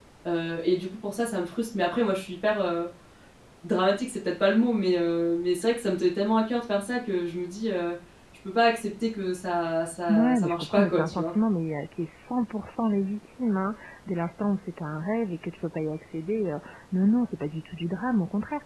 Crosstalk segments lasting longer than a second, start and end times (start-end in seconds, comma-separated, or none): 10.1-11.3